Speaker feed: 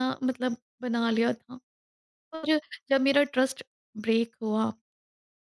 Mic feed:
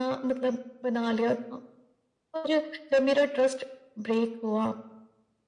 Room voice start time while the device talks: none

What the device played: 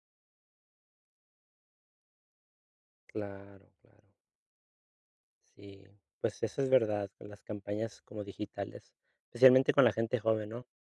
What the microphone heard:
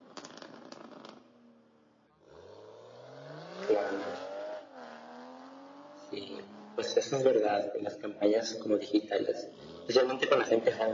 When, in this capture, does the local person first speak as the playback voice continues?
none

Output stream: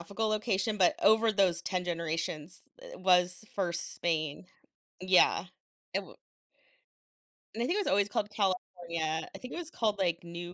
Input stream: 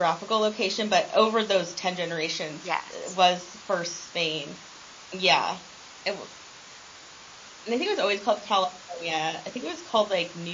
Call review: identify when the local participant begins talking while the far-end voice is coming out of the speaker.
2.6 s

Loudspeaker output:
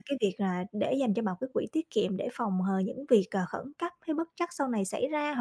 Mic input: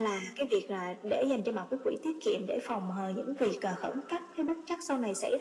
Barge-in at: none

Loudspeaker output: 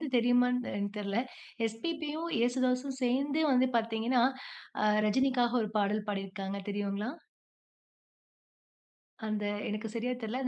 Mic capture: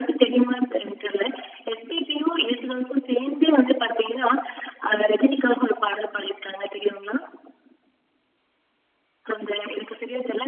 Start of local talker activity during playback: none

